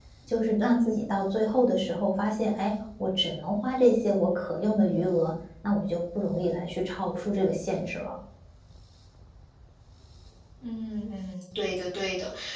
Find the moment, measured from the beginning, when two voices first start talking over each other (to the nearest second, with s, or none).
none